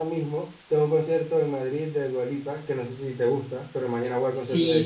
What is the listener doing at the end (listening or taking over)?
taking over